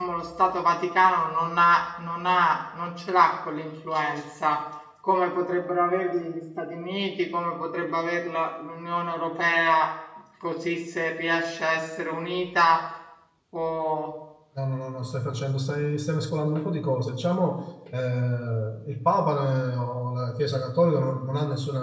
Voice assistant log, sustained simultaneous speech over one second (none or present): none